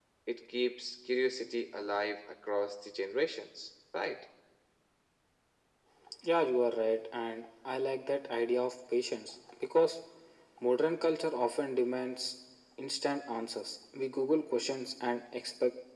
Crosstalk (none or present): none